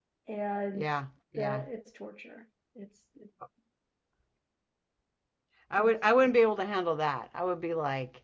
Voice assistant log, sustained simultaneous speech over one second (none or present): none